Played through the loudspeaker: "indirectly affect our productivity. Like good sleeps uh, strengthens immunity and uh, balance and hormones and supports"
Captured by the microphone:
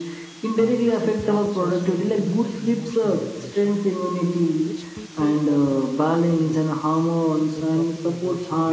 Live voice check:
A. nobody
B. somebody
B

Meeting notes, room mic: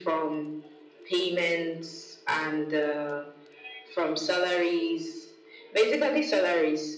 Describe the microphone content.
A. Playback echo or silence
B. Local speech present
A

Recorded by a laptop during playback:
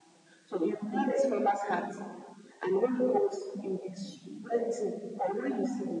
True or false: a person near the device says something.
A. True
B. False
B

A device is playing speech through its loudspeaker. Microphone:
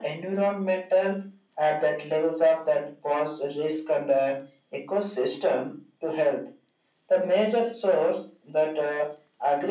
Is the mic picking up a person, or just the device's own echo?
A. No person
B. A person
A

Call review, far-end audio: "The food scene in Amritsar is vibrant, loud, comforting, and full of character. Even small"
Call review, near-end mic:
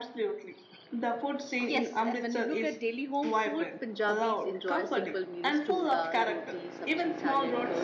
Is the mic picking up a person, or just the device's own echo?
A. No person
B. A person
B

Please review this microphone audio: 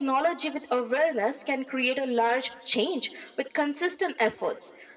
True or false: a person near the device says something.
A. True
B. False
B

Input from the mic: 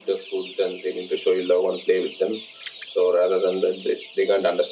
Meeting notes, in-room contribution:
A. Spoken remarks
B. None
B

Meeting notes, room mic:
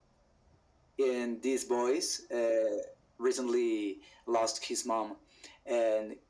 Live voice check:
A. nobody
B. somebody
A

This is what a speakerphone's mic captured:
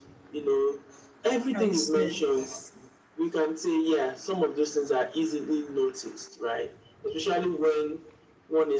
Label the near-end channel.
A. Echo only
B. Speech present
B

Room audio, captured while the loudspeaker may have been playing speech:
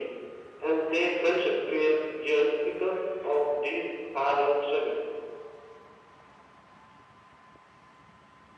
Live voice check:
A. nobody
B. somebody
A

